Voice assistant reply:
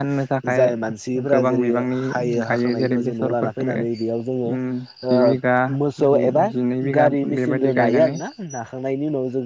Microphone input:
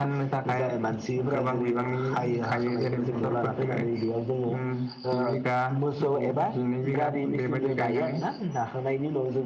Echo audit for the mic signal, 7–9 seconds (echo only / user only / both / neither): echo only